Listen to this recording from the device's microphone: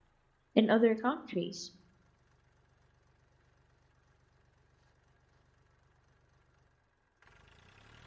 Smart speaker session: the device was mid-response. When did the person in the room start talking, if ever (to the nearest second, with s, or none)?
1 s